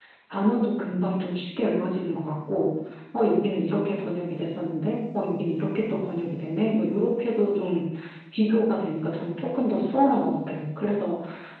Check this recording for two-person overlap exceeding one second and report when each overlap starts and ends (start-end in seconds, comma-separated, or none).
none